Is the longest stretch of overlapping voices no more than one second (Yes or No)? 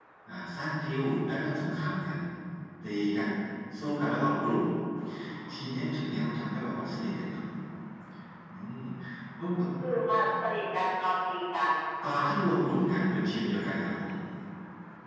Yes